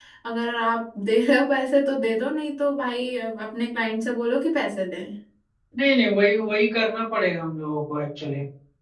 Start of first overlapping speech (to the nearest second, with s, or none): none